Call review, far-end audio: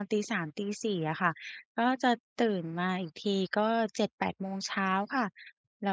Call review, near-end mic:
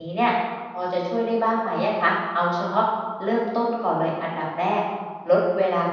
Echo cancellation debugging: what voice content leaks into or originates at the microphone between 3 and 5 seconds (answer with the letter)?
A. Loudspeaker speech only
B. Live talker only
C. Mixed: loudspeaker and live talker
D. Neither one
B